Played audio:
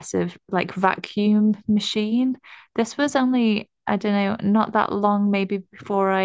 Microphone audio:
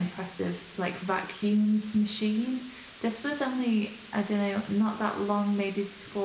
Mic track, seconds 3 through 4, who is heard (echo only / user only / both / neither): echo only